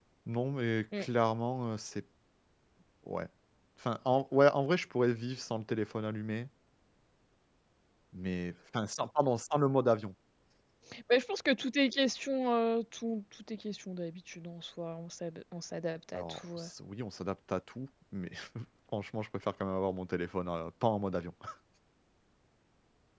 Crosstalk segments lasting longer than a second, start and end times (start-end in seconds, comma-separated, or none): none